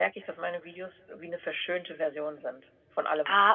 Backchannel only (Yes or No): No